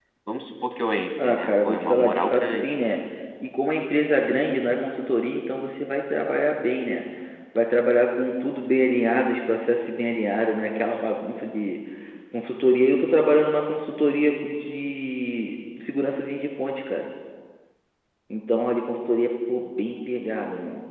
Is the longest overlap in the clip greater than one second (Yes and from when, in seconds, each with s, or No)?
Yes, from 1.2 s